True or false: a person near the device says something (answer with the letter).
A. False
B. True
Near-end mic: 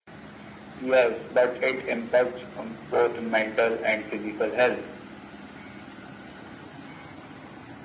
A